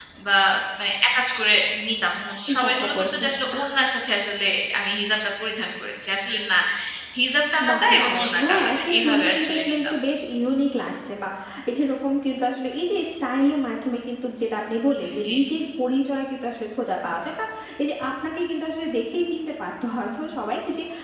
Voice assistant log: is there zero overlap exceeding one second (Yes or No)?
No